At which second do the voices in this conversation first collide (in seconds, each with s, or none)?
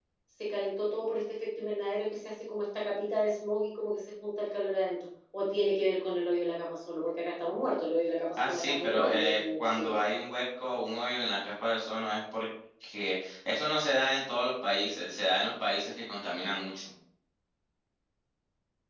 8.4 s